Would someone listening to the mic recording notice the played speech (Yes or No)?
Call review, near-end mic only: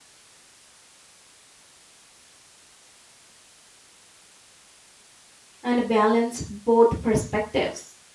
No